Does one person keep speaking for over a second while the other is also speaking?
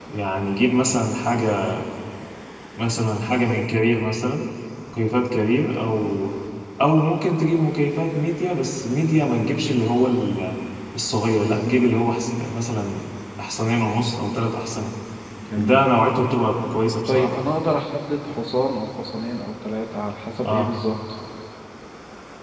No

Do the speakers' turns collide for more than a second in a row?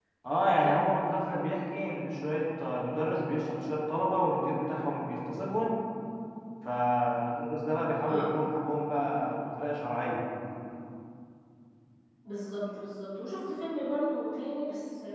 No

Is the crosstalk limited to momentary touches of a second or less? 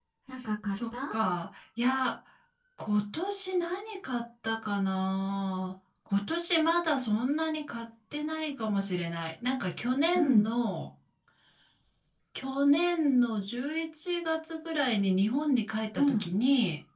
Yes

